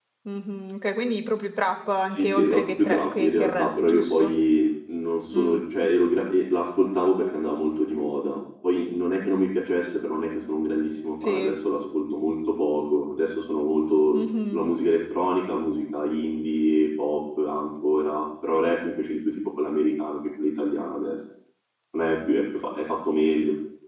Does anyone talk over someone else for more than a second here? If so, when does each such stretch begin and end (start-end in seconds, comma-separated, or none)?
2.0-4.3